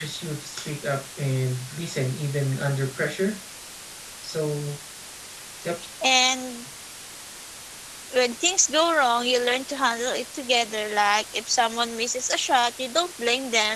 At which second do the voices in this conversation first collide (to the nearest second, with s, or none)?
none